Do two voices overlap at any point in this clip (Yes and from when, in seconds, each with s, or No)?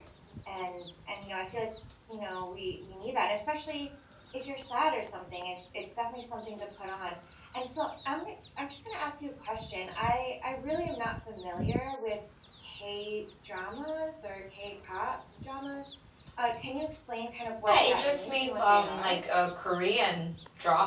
Yes, from 17.7 s